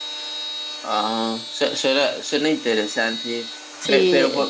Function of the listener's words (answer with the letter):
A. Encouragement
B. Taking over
A